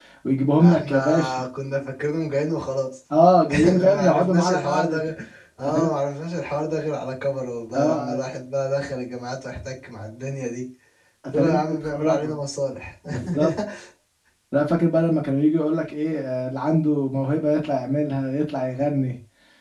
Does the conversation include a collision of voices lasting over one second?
Yes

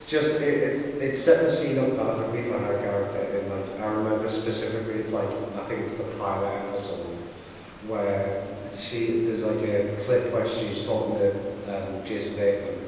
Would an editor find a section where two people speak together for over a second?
No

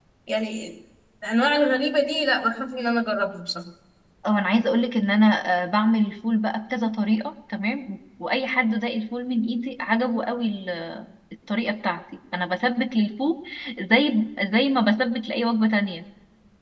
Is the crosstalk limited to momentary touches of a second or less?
Yes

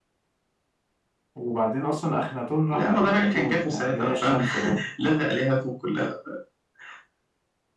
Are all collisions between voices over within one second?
No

